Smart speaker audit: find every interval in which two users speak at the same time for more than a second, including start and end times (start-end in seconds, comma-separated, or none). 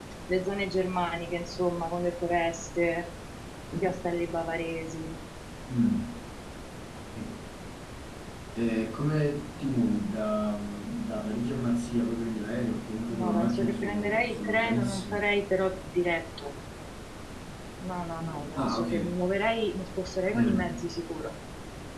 13.1-15.2